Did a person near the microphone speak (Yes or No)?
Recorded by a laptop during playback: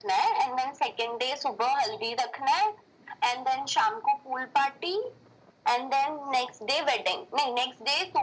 No